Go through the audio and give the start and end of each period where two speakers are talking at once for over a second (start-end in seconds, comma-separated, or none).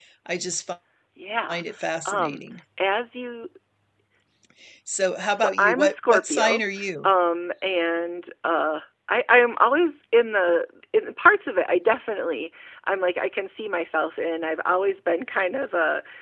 5.4-6.6